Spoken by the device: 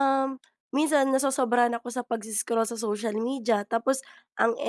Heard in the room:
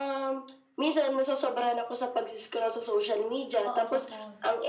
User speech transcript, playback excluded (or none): Oo, sa phone.